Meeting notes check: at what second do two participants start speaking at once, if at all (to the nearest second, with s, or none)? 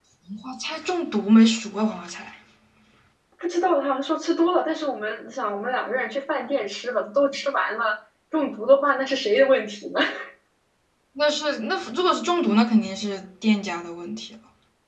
none